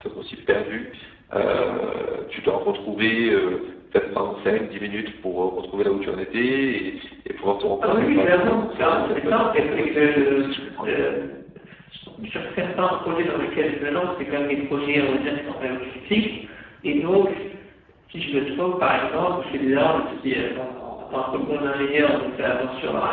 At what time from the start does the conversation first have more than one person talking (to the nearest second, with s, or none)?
8 s